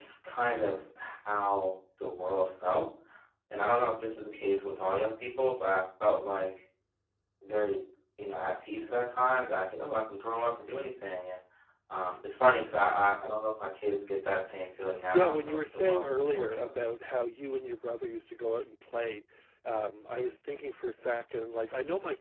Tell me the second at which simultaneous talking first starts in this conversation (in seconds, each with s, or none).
15.1 s